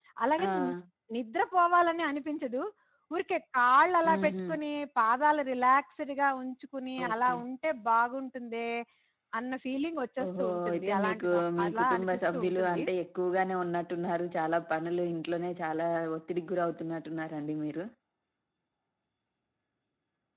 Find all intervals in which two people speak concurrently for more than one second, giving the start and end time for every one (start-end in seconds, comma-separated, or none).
10.2-12.8